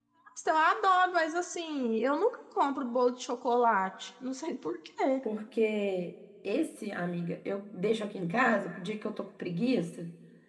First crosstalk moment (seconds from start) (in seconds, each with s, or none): none